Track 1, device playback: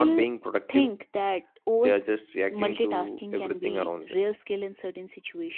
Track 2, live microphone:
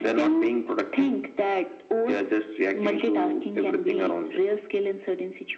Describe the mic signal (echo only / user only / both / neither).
echo only